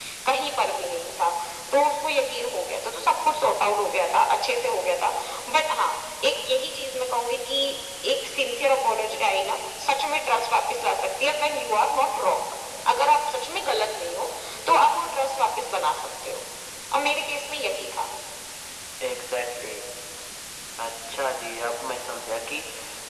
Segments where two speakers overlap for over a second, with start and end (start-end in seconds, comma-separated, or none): none